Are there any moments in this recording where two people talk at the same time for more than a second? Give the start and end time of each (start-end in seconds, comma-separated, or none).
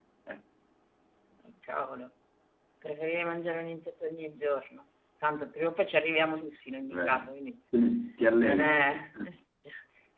none